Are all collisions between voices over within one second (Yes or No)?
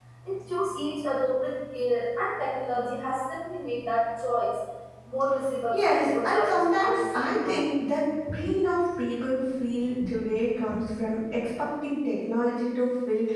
No